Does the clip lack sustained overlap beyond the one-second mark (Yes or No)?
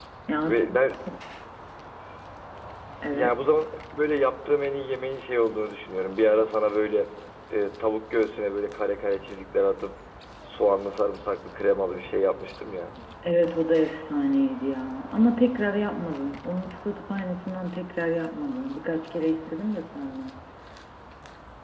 Yes